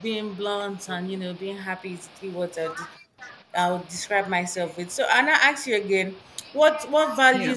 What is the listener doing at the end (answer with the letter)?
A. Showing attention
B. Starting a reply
A